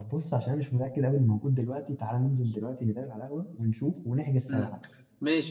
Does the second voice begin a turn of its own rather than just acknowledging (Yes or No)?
Yes